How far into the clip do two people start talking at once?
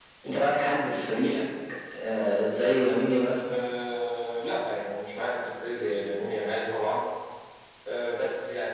none

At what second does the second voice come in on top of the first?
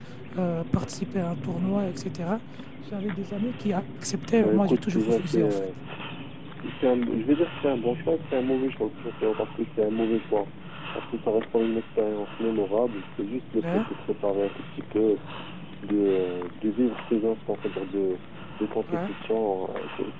4.3 s

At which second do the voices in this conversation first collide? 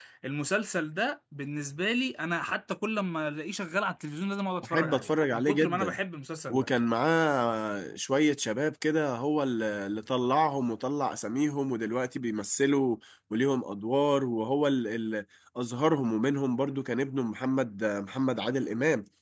4.6 s

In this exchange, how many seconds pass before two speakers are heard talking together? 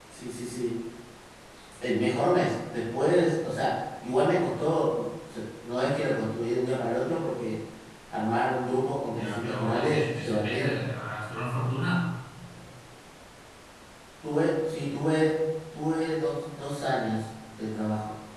9.0 s

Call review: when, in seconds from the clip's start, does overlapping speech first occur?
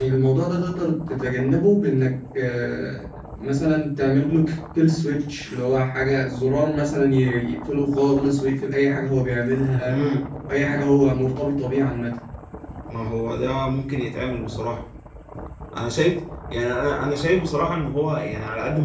none

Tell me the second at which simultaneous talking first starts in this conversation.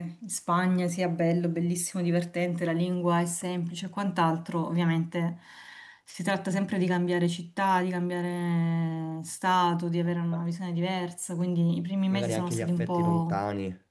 12.1 s

